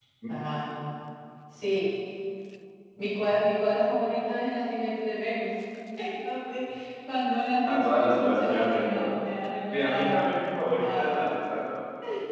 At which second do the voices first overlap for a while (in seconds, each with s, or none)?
7.7 s